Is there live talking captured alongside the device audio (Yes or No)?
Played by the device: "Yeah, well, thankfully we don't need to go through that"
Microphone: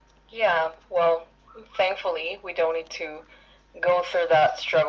No